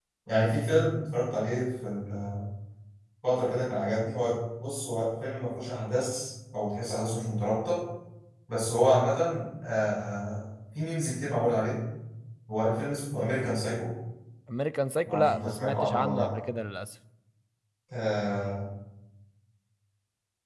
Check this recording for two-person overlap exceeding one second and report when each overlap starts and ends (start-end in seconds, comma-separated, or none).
15.1-16.3